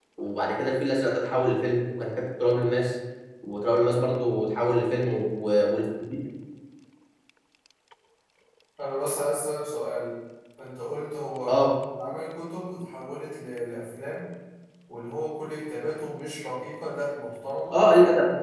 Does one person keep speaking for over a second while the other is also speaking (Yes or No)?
No